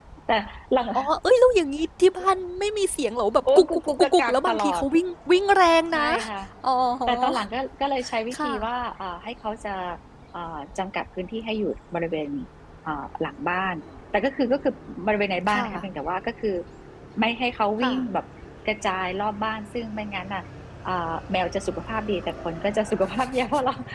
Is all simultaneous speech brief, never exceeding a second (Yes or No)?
No